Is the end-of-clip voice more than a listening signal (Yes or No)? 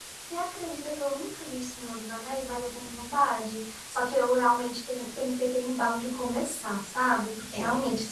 No